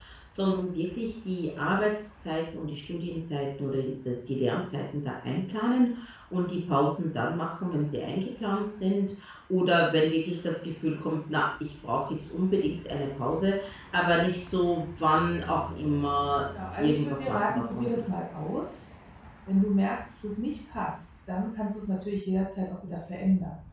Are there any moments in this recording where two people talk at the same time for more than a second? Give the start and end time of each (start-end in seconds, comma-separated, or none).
16.8-18.0